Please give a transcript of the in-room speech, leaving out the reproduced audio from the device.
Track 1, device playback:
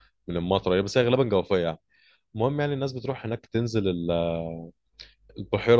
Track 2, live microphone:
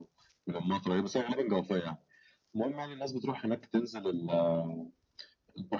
none

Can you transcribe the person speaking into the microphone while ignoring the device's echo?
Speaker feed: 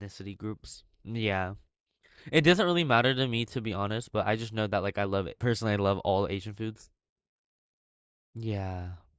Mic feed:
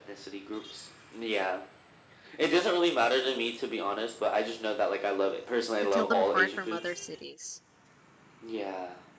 To tell them apart from other cities.

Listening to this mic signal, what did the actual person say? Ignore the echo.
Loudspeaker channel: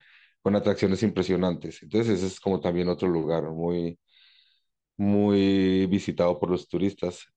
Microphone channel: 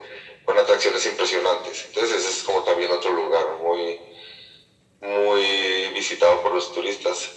none

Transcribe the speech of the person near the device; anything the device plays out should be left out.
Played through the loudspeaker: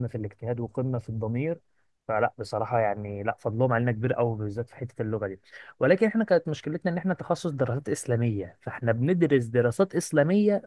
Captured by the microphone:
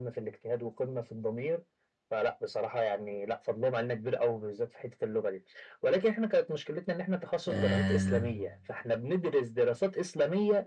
آه،

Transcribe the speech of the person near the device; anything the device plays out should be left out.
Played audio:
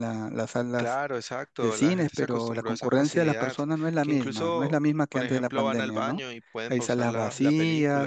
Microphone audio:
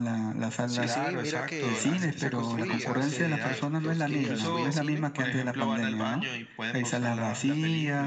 Sí, sí, mira que hace poco fui, hace que dos días fui a cine,

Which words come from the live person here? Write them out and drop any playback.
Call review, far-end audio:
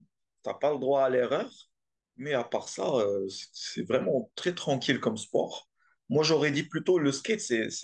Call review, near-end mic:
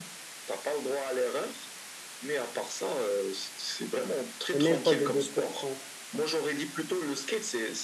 est même pas de 2%.

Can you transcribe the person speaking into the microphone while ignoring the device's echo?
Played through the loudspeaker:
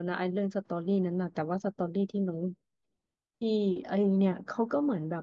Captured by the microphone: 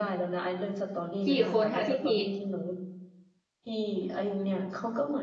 กี่คนคะพี่กรีด

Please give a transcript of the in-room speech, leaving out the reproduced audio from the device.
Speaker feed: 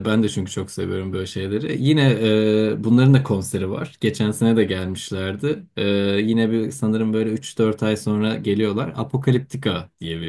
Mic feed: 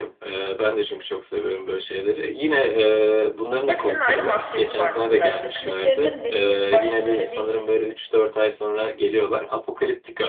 Hepsinin ayrı maskesi var mesela. İşte kliplerinin belli bir başlı böyle bir

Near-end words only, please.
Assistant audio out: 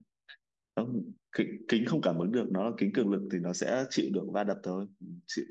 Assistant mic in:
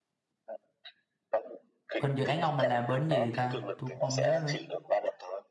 bên dự án ông mà làm bên gì ta? Tôi cũng không nhớ nữa.

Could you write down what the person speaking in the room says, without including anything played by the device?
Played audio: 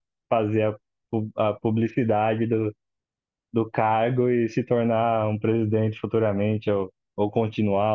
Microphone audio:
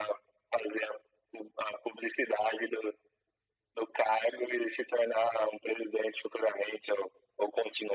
none

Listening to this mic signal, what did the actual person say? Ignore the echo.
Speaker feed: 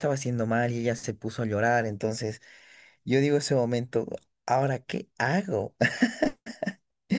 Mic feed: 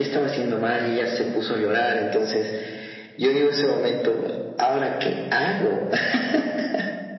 none

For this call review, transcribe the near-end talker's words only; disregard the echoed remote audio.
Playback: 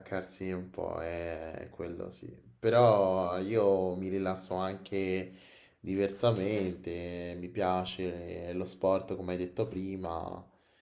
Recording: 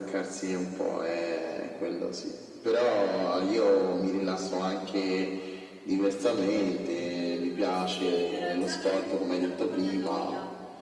mm, sì, però già mi an- dopo un po' mi annoia. Ma

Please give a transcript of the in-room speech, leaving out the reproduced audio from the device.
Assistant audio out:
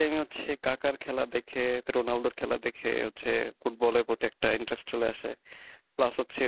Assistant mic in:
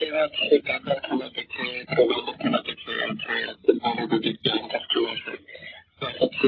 none

